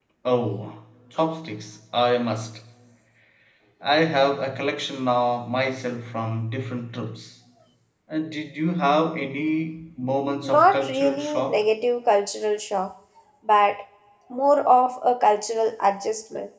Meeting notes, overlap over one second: present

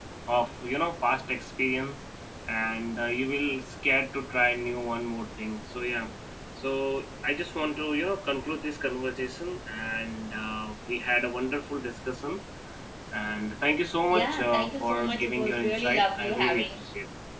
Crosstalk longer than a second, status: present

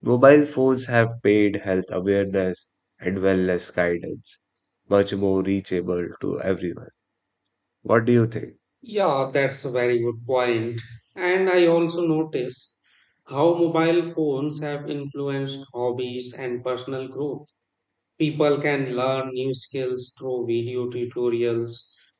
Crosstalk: none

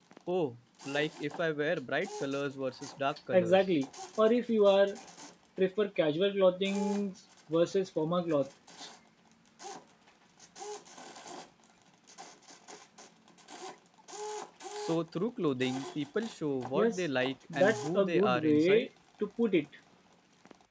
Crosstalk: present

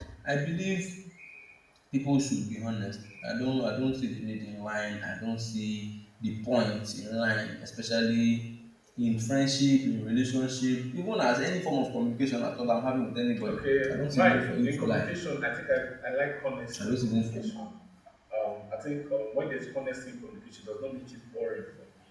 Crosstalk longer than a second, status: present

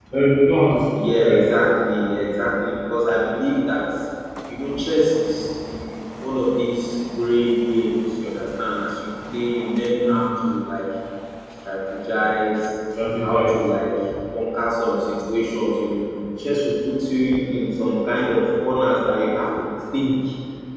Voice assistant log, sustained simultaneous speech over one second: none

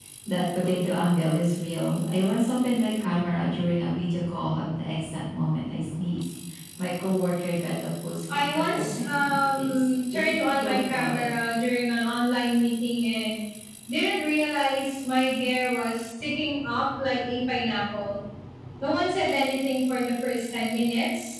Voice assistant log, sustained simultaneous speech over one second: present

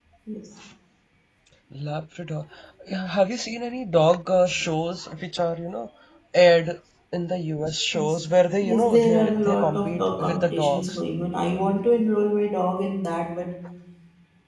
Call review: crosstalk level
present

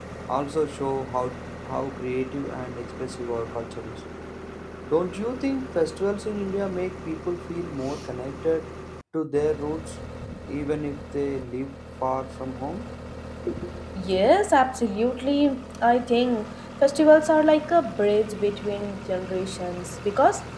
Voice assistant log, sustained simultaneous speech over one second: none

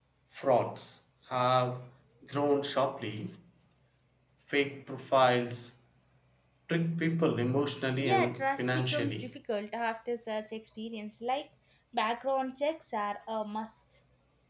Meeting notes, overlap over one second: present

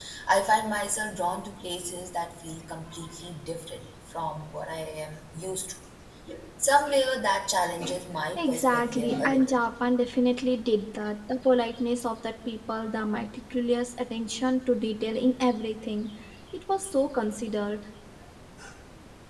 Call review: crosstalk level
present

